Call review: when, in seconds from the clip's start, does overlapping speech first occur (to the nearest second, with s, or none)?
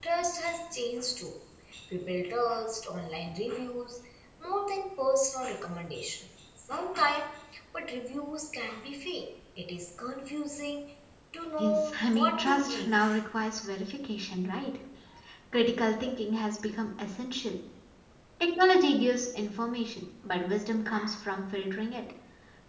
12 s